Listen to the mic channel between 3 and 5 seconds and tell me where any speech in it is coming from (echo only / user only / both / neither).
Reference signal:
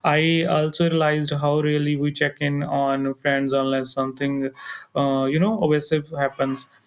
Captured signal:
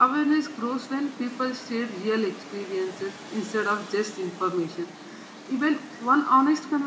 user only